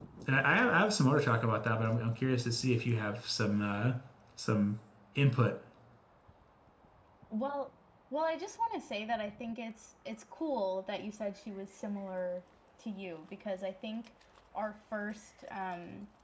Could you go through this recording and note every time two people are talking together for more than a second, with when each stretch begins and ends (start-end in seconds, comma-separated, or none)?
none